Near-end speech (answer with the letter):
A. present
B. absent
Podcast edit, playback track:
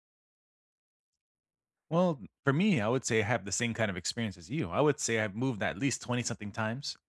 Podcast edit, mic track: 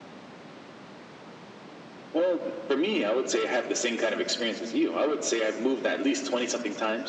B